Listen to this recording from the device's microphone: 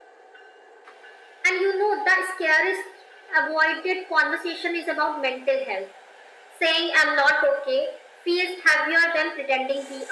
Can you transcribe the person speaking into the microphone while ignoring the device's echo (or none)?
none